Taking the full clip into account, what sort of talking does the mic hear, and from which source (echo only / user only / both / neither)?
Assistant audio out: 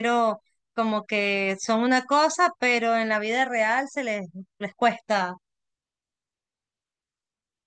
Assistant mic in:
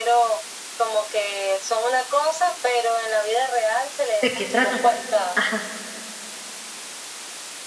both